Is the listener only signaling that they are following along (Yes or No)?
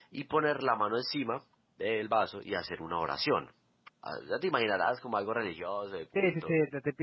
No